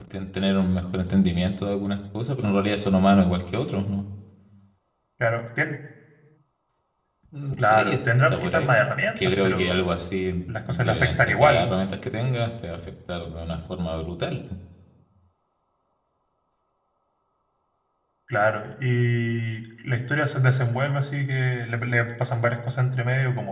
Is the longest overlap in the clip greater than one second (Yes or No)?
Yes